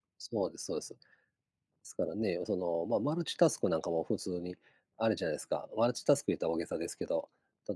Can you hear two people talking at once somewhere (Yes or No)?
No